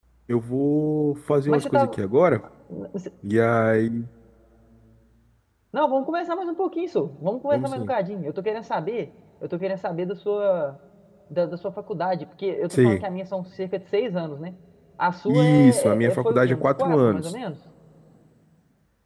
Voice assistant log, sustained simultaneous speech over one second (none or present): present